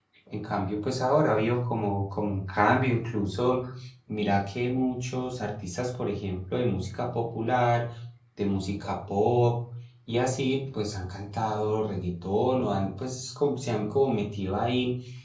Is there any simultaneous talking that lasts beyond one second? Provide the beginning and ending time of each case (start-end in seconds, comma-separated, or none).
none